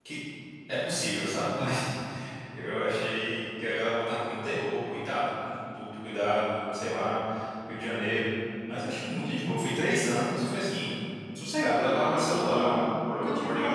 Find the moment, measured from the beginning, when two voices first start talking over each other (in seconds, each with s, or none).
11.8 s